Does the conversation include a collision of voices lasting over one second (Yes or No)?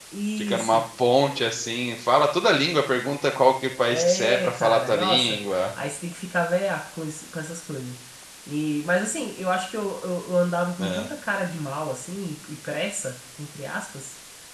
Yes